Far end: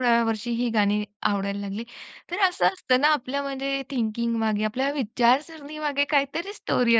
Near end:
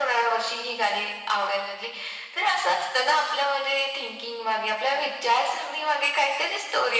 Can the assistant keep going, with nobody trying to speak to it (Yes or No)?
Yes